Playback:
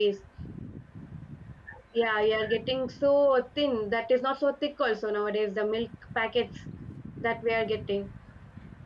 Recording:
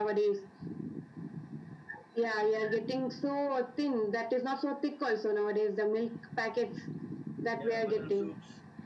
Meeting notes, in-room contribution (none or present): present